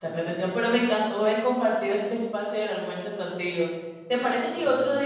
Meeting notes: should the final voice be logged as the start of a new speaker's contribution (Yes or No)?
No